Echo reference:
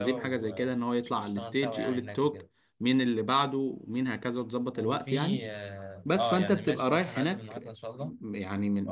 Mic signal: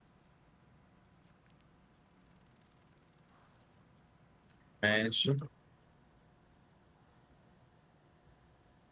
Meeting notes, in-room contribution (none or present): present